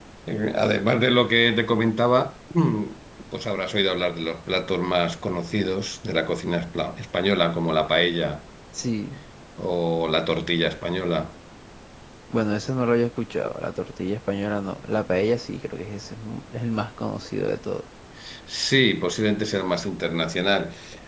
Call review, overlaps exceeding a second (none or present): none